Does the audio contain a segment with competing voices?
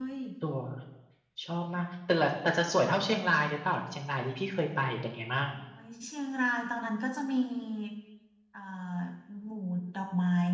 No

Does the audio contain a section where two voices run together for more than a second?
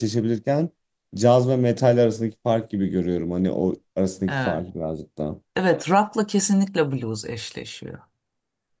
No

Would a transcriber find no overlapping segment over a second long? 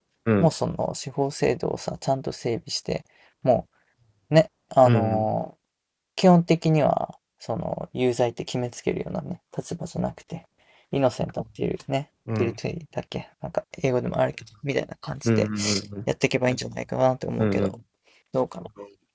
Yes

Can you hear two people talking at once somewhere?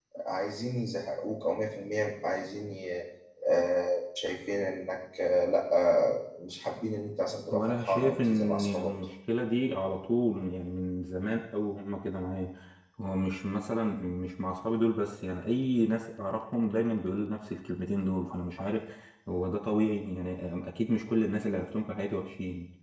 Yes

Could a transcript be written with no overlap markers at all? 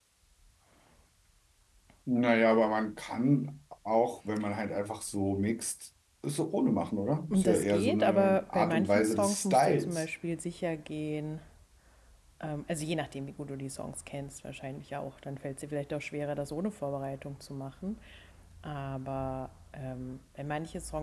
No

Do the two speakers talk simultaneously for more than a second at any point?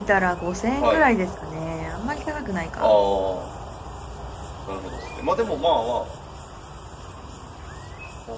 No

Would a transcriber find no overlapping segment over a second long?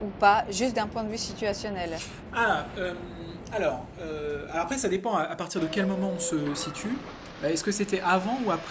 Yes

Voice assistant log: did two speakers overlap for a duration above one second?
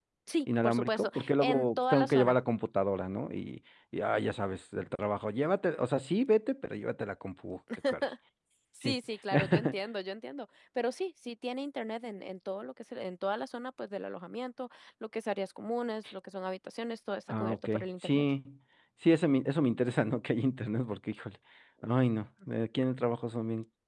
Yes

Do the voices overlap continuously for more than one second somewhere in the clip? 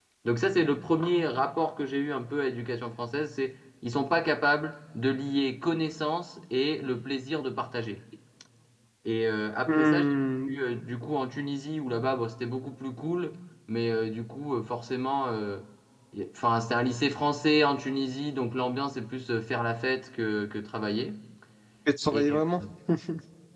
No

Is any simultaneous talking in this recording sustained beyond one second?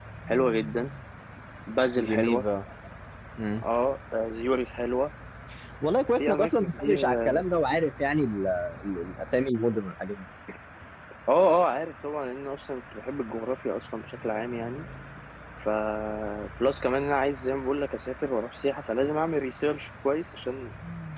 Yes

